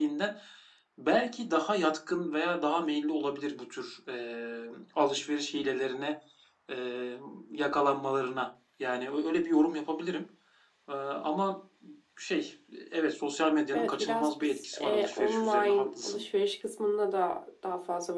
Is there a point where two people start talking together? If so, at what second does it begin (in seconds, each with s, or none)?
13.7 s